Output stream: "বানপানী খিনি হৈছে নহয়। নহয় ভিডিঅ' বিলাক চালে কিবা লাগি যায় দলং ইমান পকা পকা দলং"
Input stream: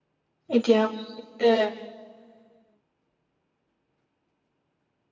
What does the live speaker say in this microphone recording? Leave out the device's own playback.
এতিয়া এ

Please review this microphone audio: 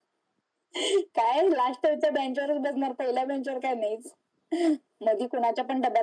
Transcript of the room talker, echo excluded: none

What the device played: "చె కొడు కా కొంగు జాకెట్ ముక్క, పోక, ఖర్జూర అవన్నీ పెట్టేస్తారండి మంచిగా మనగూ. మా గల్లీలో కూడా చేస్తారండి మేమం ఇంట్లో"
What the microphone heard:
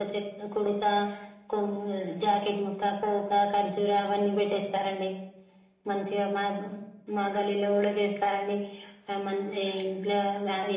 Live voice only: none

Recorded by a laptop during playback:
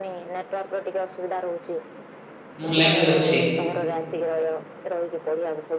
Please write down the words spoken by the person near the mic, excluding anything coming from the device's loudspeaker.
ମୁଁ ଲାଇନରେ ଅଛି।

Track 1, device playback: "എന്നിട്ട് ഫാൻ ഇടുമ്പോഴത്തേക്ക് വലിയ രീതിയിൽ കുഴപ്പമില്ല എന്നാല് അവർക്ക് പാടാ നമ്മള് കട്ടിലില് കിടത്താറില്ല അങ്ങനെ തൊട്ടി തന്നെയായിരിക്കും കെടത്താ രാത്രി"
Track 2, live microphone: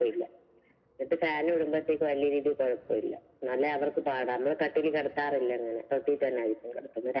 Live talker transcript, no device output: none

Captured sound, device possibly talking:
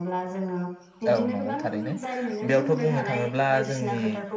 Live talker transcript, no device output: औ नंगौ थारैनो बेयावथ बुंनो थाङोब्ला जों नि

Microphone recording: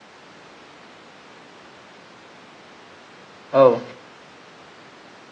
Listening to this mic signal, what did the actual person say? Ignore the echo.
औ

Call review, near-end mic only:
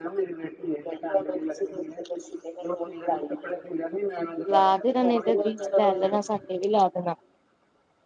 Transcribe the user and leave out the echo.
ਲਾ ਦੇਣਾ ਨੇ ਤੇ ਬੀਜ ਲੈ ਲੈਣਾ ਸਾਡੇ ਵੀ ਲਾ ਦੇਣਾ।

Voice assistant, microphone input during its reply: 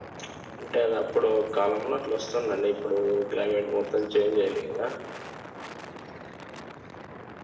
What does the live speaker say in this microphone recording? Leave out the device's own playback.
none

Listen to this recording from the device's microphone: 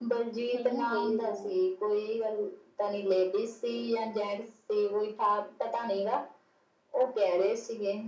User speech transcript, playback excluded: ਹਾਂ ਵੈਰੀ ਨਾ

